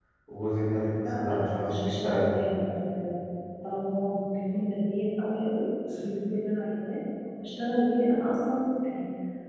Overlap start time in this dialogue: 0.9 s

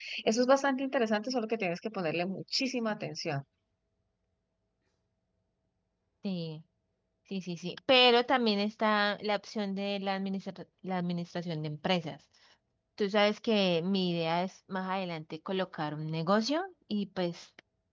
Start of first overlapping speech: none

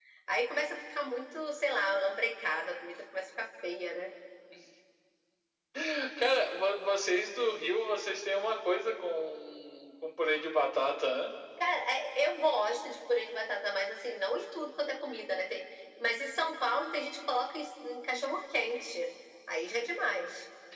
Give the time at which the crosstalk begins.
none

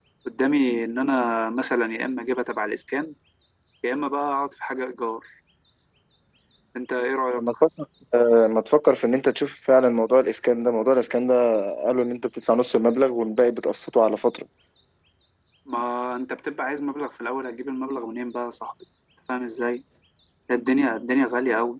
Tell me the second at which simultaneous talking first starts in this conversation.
none

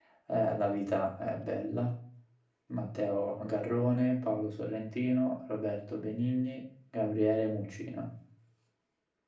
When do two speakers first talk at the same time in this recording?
none

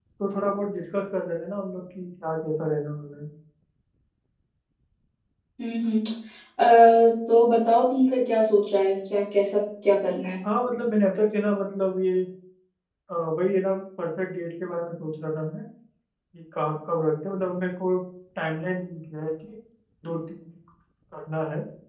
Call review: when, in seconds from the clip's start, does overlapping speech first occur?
none

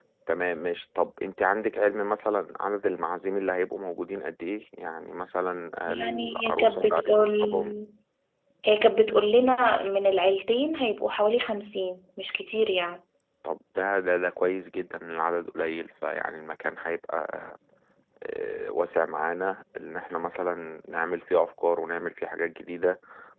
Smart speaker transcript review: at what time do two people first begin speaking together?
5.9 s

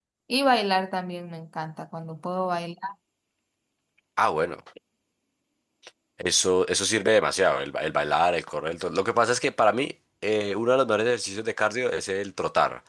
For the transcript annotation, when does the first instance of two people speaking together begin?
none

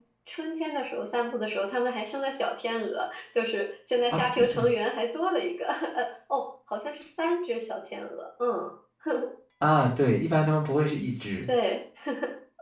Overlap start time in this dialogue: none

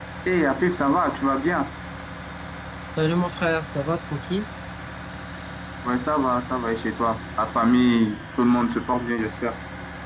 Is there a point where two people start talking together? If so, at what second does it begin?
none

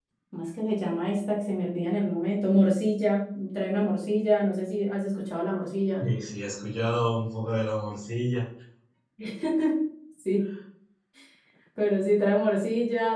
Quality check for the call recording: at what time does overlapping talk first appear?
none

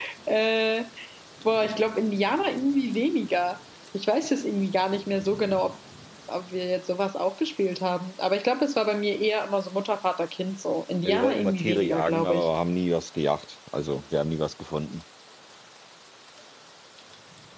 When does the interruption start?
11.1 s

